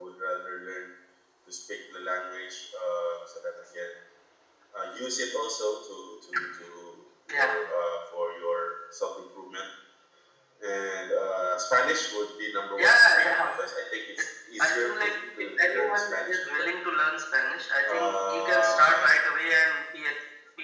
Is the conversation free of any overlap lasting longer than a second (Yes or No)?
No